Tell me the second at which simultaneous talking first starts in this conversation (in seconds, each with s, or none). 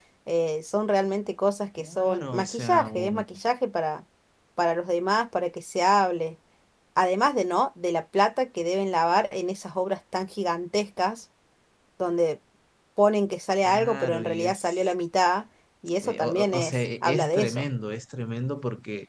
1.8 s